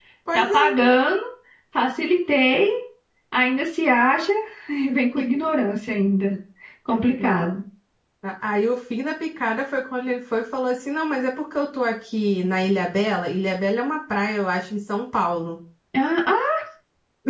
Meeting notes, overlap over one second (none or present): none